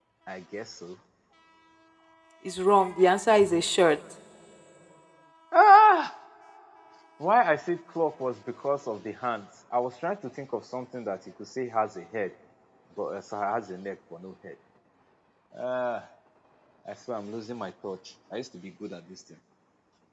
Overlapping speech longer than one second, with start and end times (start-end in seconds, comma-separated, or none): none